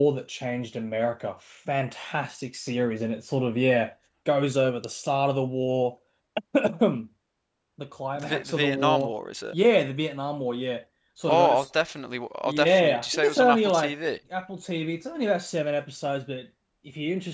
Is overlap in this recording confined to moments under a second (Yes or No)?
No